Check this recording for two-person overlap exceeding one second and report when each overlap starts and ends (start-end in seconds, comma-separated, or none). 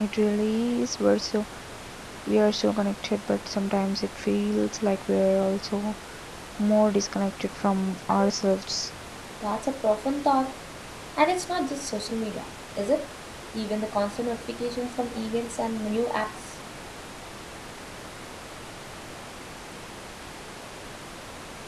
none